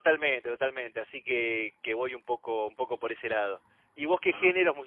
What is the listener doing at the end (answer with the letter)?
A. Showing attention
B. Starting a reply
A